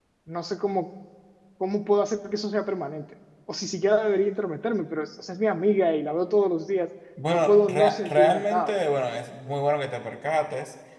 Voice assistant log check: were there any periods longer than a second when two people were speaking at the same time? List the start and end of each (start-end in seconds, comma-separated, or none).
7.3-8.8